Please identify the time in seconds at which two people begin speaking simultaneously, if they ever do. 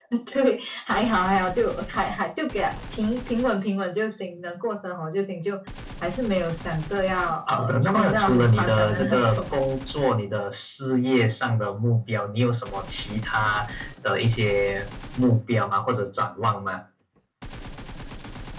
7.5 s

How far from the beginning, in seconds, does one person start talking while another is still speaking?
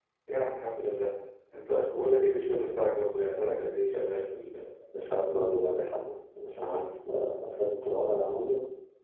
none

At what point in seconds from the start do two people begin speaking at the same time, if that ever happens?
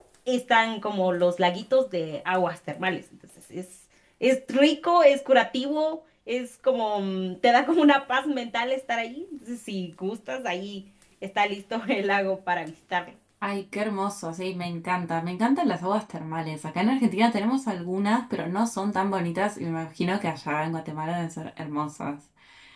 none

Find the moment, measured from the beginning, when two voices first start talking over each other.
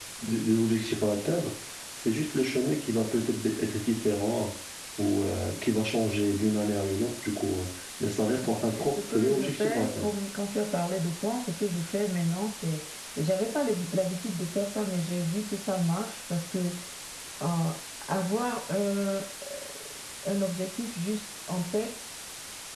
8.0 s

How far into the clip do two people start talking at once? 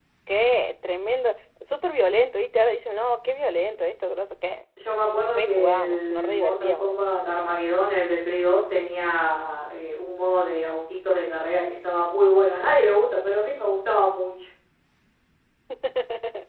5.3 s

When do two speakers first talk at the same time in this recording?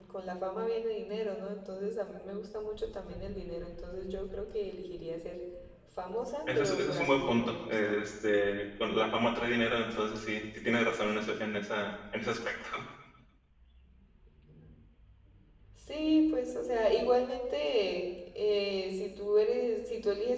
6.5 s

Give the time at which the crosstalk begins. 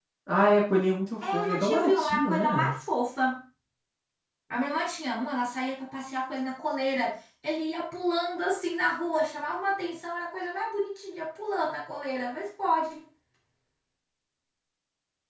1.2 s

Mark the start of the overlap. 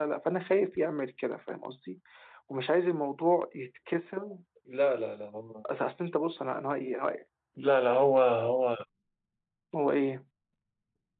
none

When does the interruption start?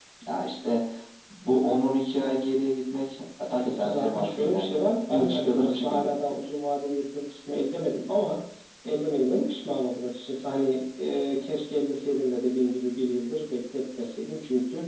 3.6 s

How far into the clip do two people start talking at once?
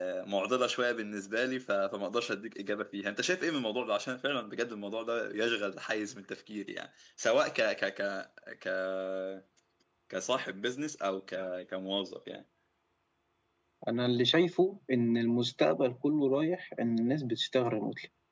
none

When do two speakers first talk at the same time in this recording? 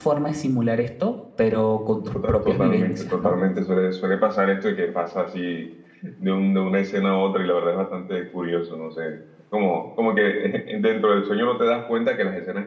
2.0 s

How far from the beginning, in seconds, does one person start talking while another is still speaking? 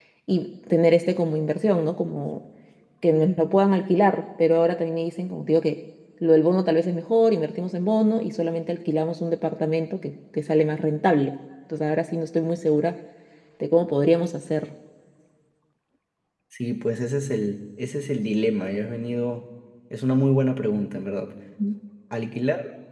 none

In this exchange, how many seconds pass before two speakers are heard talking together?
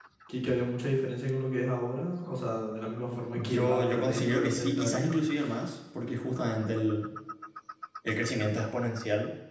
3.3 s

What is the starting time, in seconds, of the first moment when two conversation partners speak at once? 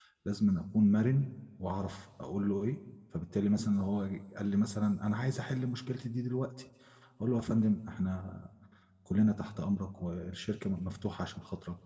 none

